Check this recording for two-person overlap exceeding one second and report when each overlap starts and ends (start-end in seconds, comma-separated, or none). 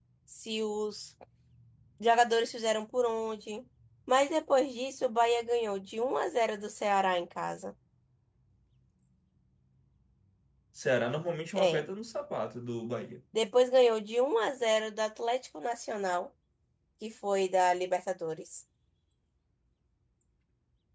none